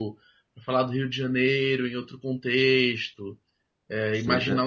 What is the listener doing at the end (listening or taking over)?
taking over